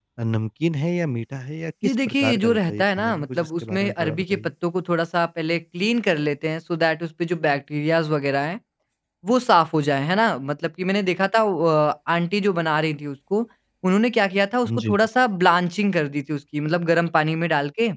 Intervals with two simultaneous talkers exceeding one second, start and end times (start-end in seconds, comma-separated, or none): 1.8-4.5